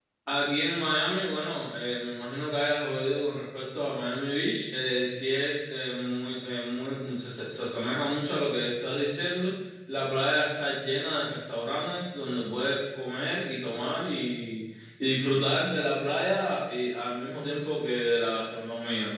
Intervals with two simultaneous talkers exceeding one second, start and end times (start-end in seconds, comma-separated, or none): none